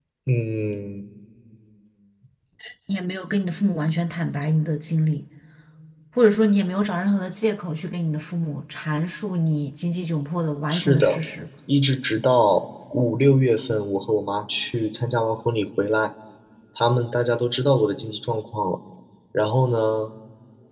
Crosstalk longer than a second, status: none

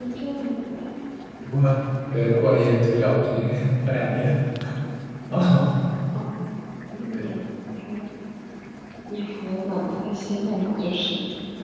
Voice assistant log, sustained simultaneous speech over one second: none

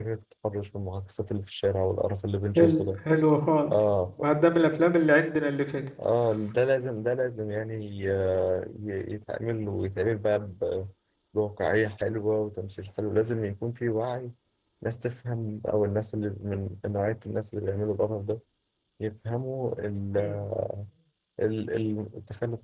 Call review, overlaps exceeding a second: none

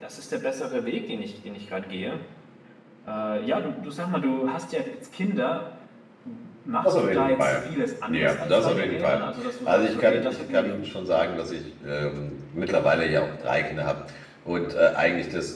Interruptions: present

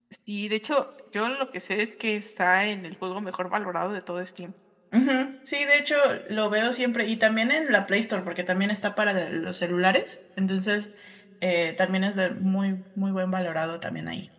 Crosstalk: none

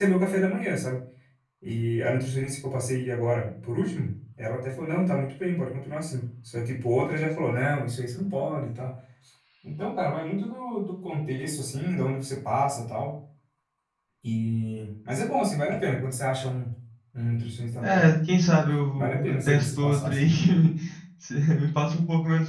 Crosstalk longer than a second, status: present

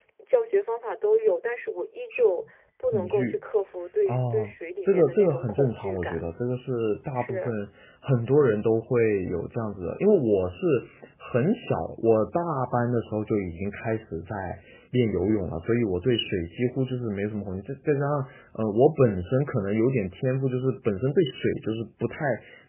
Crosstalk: present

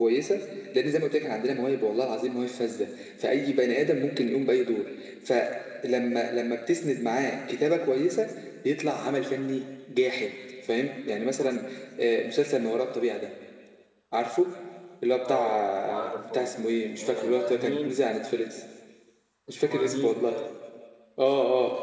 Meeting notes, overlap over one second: present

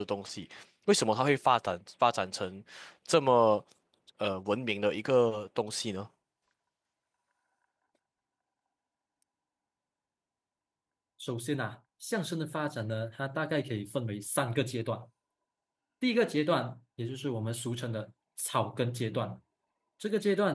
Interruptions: none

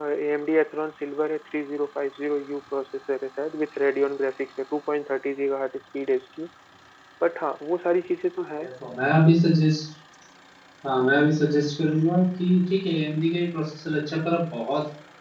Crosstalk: none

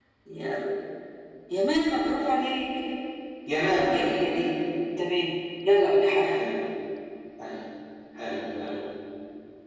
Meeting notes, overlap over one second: none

